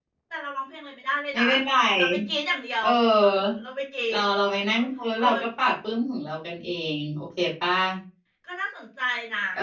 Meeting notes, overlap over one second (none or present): none